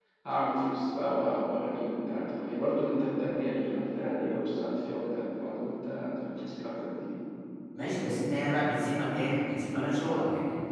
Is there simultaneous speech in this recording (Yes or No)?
No